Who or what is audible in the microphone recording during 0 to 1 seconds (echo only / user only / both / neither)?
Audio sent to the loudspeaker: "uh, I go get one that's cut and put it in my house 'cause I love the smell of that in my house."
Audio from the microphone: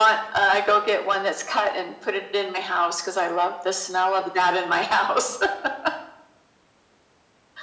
echo only